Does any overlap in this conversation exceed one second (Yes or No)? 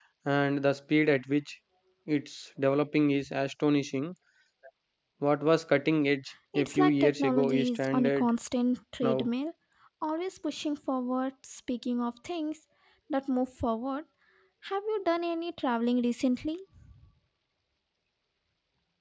Yes